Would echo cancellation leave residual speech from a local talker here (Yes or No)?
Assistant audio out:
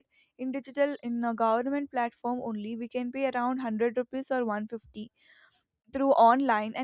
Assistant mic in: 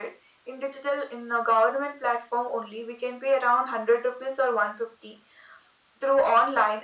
No